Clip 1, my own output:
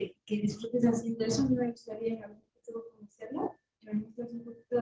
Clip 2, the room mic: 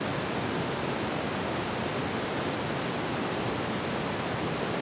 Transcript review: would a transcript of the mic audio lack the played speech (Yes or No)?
Yes